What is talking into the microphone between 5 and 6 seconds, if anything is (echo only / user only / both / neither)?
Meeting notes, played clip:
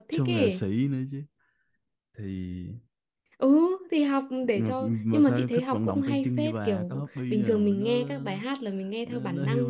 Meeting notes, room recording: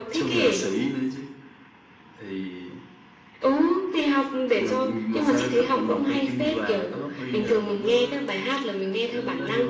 echo only